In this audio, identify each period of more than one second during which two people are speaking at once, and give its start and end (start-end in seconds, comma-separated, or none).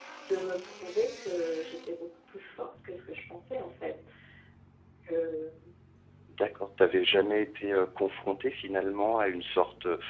none